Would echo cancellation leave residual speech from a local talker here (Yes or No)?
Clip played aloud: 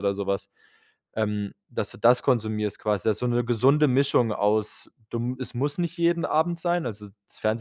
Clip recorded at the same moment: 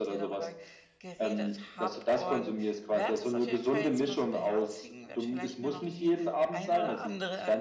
Yes